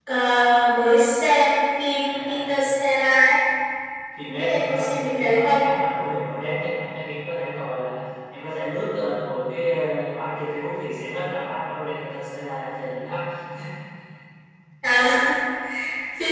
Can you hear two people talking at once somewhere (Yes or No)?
Yes